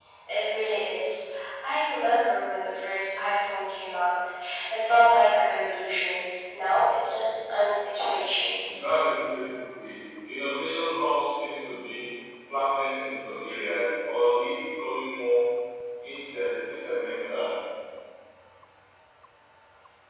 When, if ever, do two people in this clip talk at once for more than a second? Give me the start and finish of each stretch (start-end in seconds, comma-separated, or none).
none